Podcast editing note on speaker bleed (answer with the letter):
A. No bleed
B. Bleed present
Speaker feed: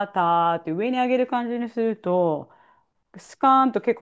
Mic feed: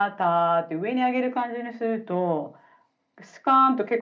B